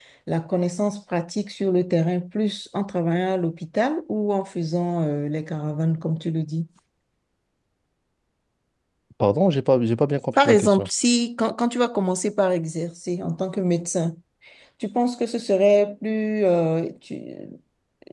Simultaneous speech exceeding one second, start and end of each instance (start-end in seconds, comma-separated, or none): none